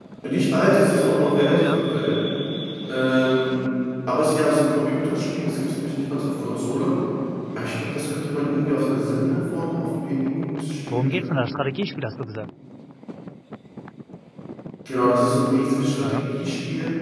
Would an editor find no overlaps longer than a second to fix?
Yes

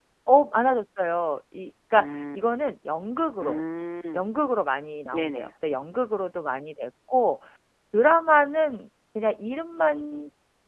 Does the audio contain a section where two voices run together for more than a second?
No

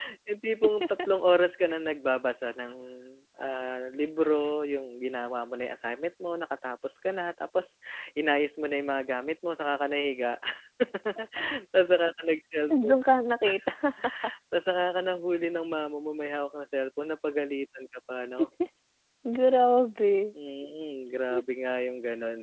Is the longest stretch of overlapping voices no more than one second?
Yes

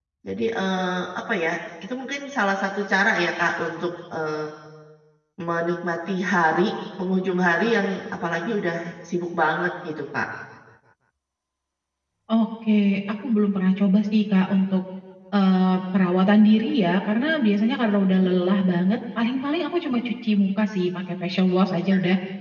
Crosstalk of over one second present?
No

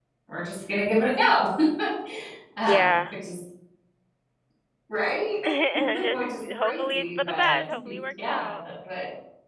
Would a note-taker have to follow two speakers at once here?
Yes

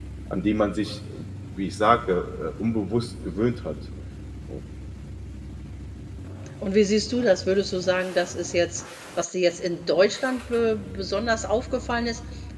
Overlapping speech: No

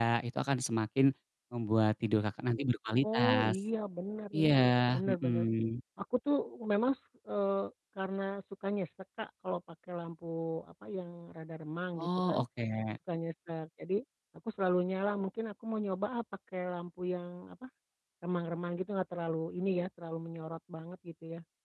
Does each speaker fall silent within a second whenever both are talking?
Yes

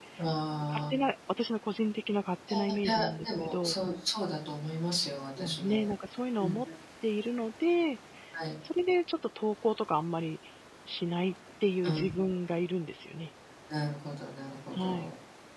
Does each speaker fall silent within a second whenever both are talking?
No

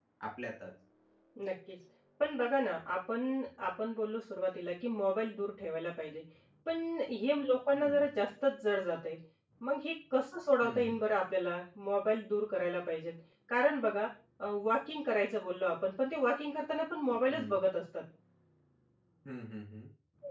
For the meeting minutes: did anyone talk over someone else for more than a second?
No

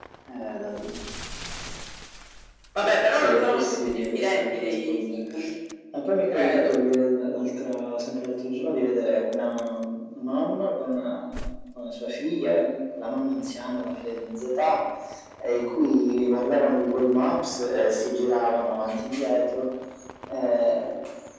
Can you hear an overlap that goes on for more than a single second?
Yes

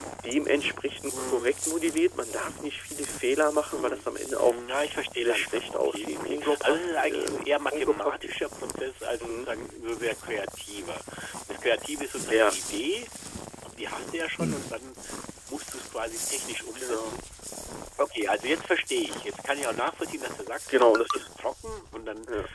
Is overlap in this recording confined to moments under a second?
No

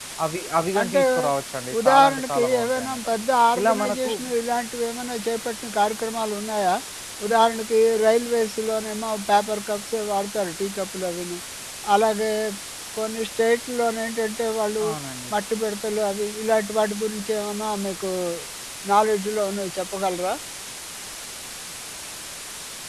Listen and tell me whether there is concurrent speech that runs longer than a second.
Yes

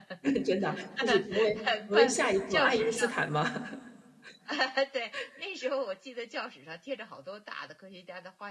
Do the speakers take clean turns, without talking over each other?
No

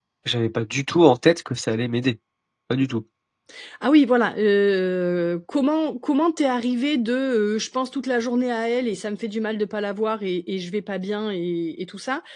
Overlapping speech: No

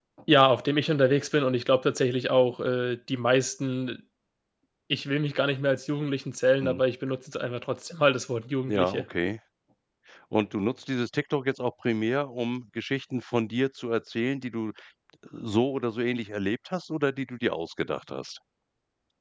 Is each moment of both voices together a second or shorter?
Yes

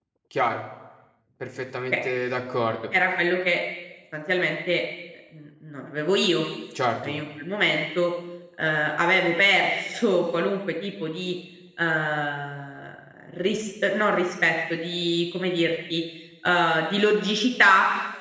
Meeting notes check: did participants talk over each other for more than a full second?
No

